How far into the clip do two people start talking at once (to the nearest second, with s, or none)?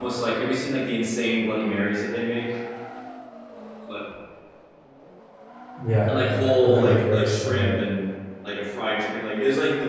6 s